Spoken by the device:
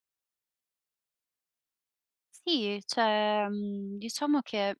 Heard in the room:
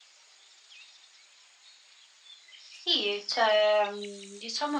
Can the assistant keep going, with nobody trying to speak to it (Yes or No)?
Yes